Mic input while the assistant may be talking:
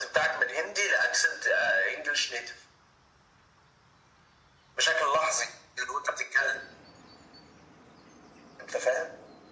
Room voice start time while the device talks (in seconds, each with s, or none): none